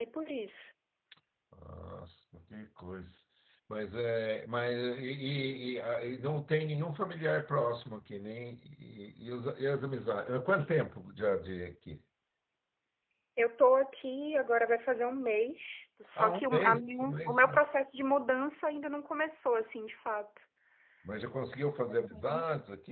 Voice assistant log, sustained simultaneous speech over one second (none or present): present